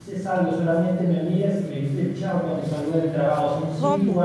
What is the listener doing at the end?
listening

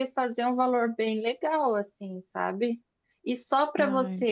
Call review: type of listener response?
listening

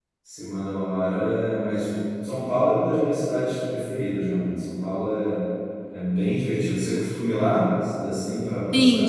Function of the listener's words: taking over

